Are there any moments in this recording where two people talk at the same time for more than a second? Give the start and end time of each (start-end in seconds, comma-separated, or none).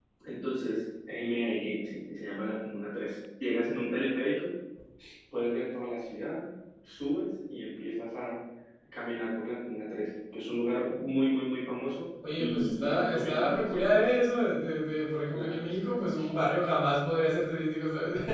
12.4-14.0